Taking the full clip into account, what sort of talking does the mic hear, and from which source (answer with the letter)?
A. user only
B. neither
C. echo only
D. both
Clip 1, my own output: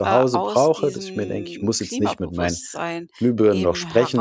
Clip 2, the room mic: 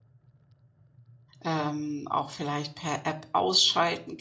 A